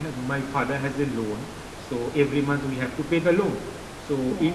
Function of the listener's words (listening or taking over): listening